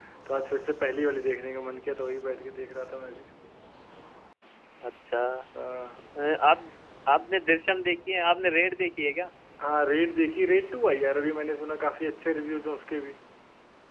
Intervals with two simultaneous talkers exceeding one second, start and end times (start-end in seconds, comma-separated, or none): none